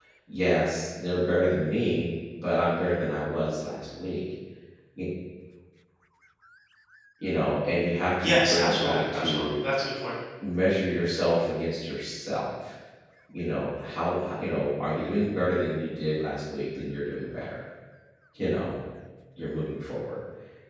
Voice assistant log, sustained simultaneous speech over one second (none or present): present